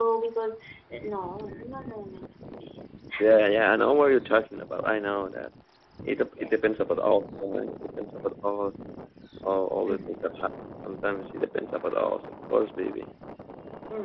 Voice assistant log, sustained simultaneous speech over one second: none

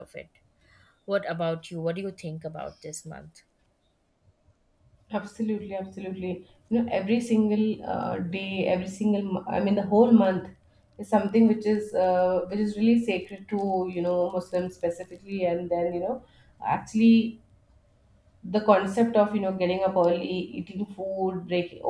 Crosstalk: none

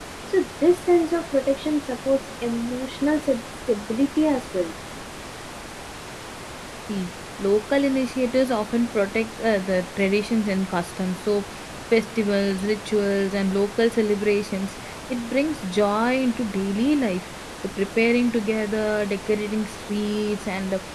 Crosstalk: none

